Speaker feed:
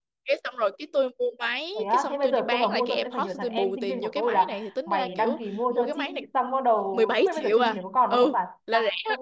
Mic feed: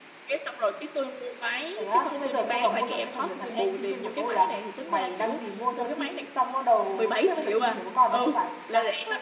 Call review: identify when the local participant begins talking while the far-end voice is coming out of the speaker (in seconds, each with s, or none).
none